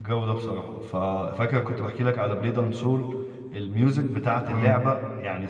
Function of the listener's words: listening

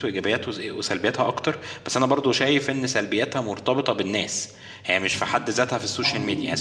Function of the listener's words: listening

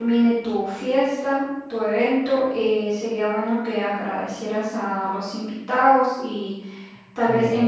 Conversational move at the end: listening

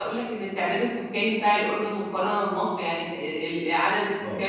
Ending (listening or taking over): listening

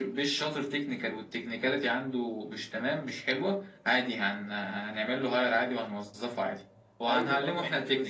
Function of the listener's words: taking over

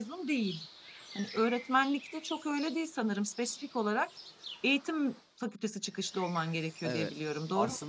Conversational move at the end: taking over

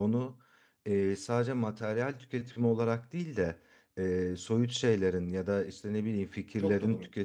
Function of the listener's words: listening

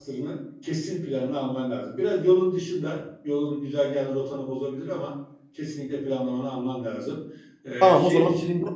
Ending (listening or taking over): taking over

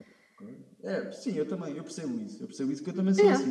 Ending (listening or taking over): listening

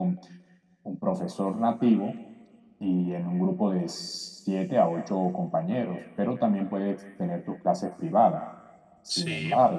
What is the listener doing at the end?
listening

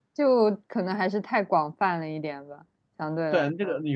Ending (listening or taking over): taking over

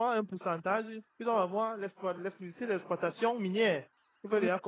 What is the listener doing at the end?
listening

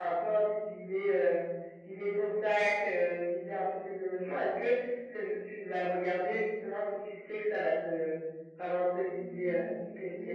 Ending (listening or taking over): taking over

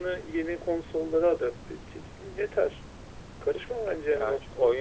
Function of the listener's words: taking over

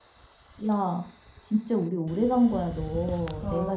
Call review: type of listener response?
listening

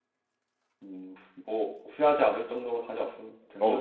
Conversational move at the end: taking over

